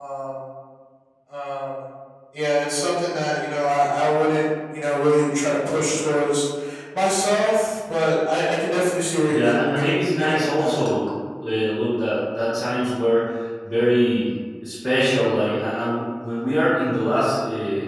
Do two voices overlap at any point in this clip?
Yes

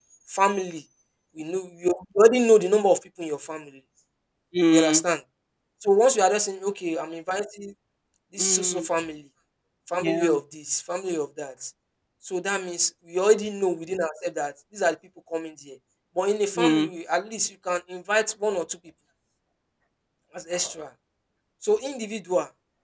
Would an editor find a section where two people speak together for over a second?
No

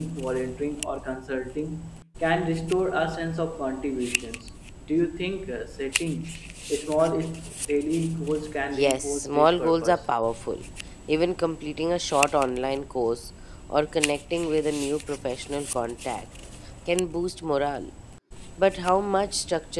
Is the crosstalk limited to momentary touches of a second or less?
No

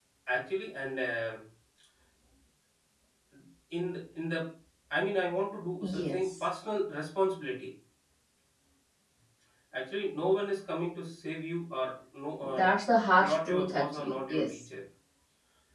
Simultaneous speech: Yes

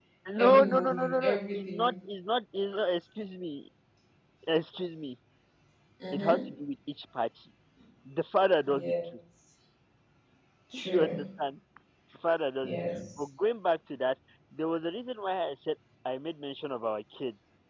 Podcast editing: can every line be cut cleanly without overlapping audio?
No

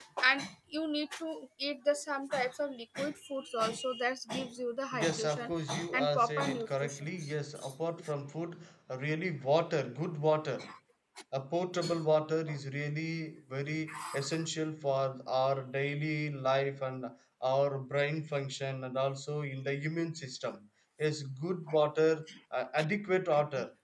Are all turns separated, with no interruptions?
No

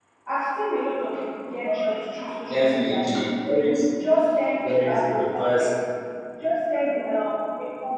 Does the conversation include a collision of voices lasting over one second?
No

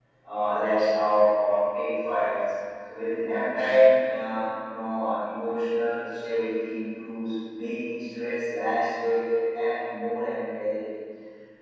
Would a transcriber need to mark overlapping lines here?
No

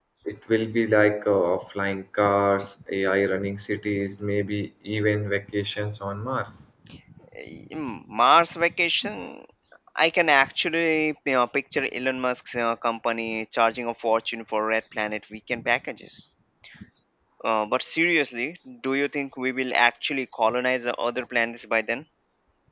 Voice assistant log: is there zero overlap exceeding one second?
Yes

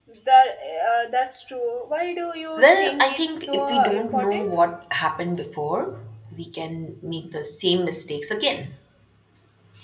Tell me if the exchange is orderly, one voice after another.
No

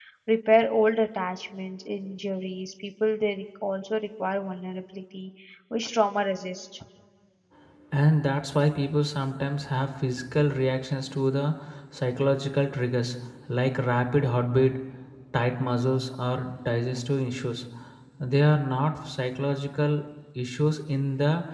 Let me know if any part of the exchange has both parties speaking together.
No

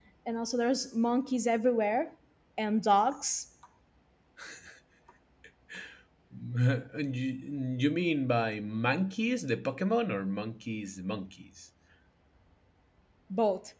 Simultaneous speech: No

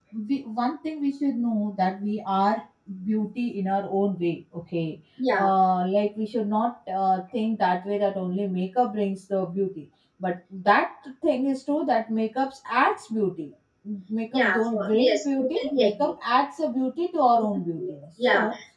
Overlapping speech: Yes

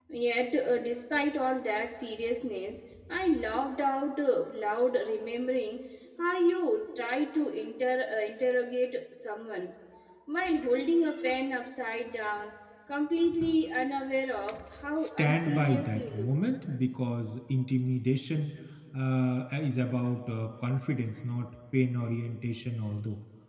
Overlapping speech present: Yes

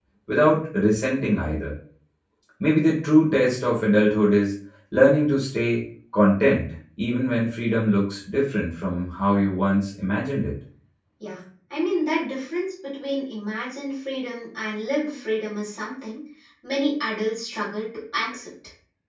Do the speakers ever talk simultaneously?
No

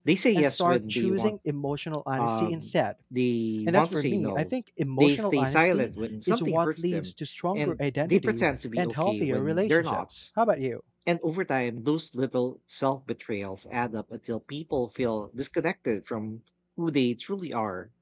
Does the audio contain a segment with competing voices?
Yes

